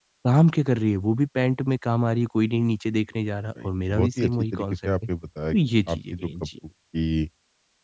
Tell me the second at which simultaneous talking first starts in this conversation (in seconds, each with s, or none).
3.6 s